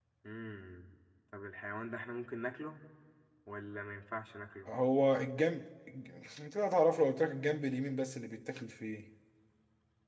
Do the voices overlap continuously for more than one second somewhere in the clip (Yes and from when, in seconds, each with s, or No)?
No